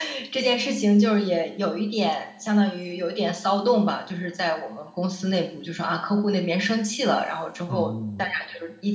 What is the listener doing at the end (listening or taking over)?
listening